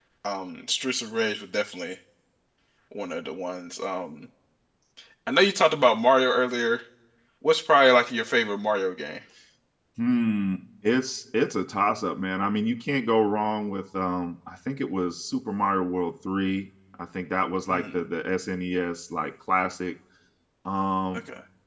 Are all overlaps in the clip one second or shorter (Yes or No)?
Yes